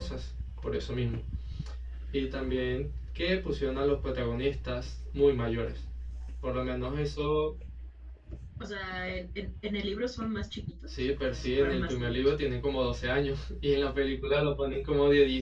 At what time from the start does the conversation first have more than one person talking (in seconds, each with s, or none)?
10.9 s